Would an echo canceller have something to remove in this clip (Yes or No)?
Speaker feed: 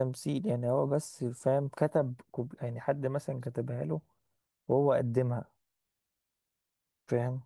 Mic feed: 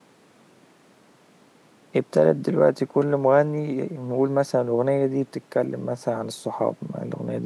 No